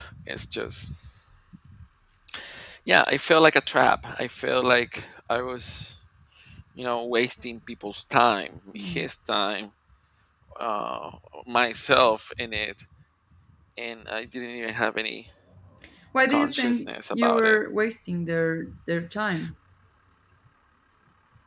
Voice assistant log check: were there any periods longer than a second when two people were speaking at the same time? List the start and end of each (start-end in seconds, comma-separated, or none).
16.3-17.6